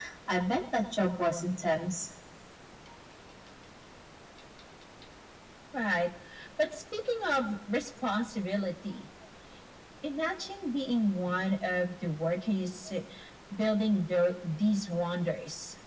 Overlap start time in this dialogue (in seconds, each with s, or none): none